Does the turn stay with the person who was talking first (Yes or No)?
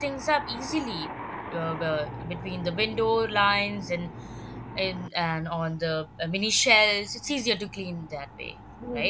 No